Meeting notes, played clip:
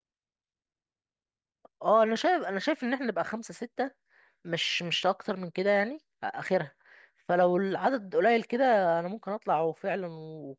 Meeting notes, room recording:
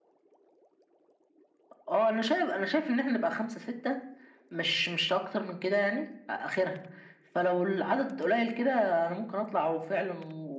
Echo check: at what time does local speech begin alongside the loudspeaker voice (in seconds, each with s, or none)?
none